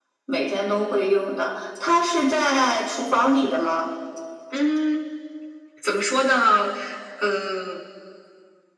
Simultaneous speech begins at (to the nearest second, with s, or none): none